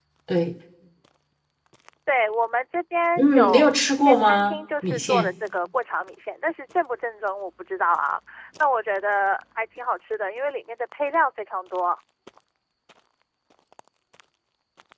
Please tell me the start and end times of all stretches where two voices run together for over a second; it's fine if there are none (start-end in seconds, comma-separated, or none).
3.2-5.3